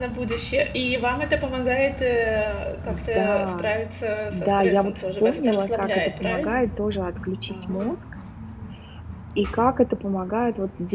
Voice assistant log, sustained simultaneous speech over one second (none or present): present